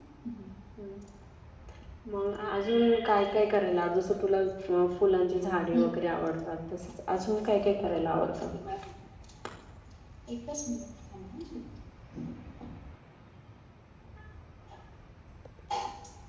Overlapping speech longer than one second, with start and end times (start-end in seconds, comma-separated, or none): none